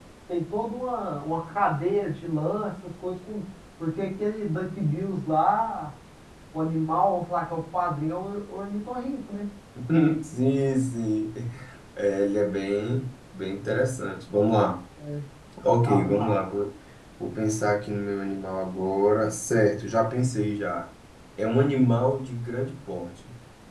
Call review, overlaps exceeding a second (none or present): none